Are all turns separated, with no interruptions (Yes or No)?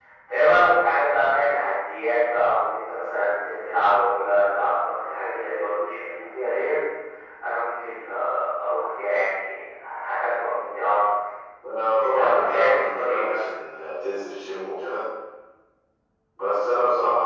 No